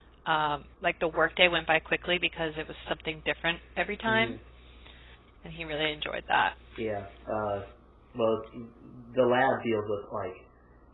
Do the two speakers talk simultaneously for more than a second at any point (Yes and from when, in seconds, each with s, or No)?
No